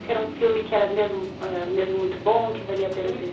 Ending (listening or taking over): listening